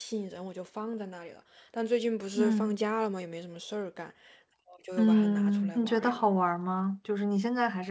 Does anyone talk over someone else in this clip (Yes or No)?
Yes